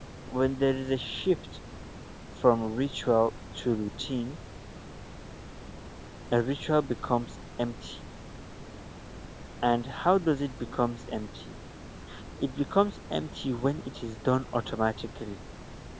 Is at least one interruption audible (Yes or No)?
No